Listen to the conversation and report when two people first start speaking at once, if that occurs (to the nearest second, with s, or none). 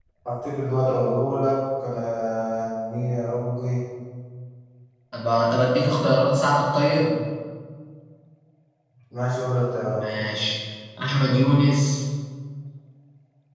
none